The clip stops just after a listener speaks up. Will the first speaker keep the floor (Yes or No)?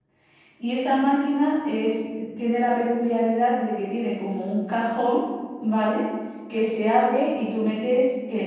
Yes